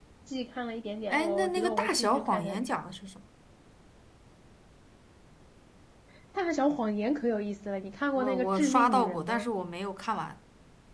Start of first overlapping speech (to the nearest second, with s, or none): 1 s